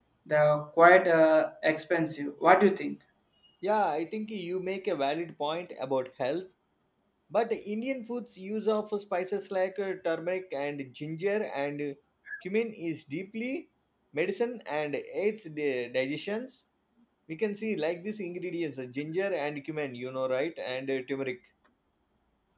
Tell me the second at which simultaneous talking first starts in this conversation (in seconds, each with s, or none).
none